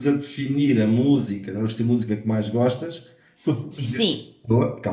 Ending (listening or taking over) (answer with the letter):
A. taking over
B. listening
B